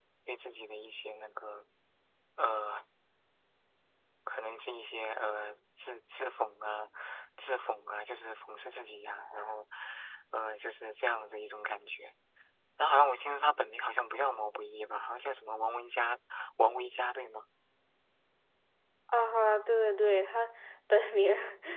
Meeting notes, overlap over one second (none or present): none